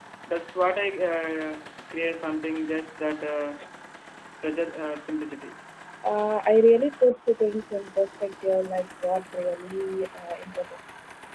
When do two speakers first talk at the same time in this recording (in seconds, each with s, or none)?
none